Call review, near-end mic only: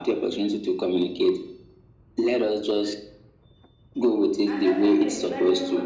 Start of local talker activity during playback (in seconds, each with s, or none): 4.4 s